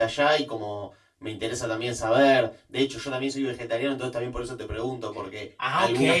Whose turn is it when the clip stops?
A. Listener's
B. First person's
B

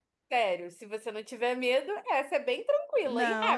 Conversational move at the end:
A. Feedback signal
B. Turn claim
B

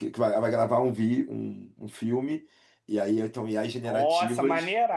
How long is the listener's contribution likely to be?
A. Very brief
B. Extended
B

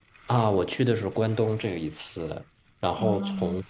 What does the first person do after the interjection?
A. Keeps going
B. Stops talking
A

